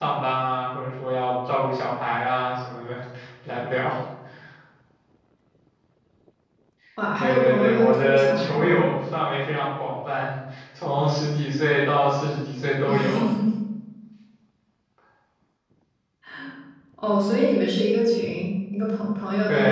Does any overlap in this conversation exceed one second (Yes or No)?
Yes